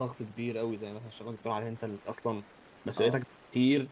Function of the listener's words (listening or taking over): listening